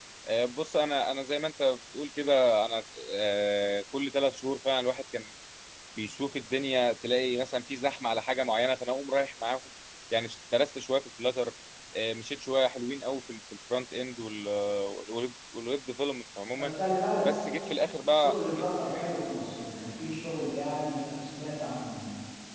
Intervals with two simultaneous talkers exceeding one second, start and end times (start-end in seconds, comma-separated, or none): none